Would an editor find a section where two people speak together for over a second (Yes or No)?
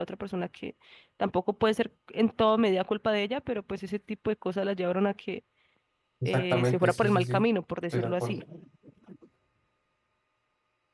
Yes